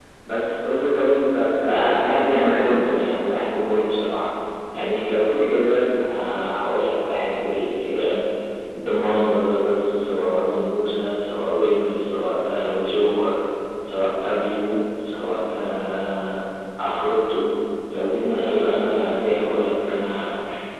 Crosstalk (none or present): present